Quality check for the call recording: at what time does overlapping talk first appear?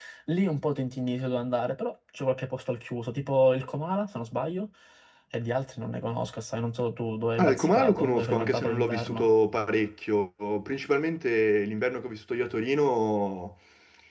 7.4 s

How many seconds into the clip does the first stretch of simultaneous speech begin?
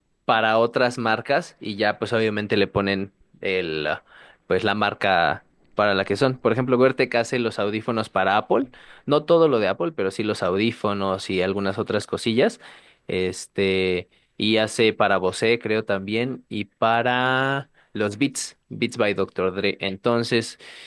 none

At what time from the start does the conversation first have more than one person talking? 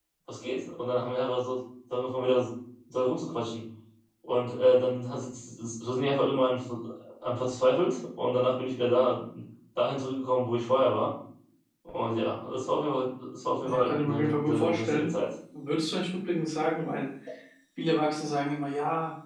13.6 s

